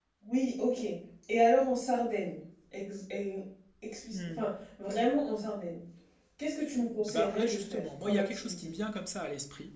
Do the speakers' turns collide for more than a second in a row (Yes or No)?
Yes